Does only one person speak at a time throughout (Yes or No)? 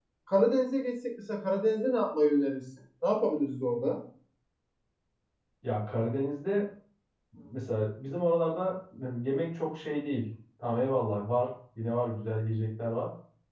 Yes